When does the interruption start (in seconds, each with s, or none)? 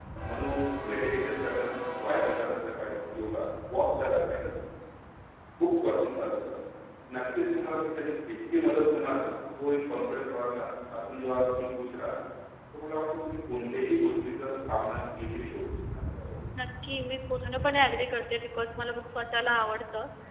none